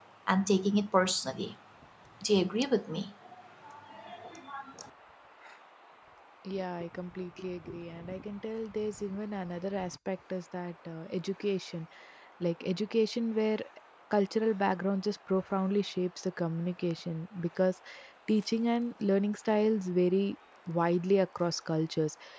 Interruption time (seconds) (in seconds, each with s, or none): none